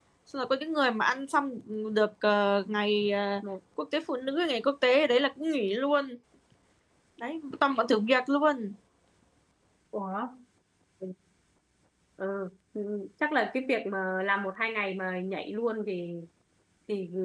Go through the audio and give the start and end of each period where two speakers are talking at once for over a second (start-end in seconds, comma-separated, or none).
none